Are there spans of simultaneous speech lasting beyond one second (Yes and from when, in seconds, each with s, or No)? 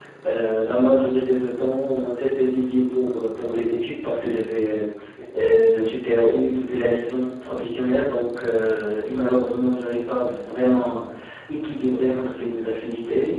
No